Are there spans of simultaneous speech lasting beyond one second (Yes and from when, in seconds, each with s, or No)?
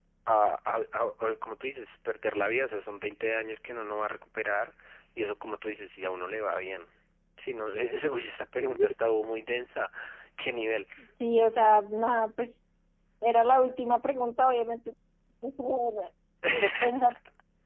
No